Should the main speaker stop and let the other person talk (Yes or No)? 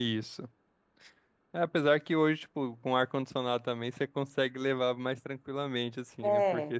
No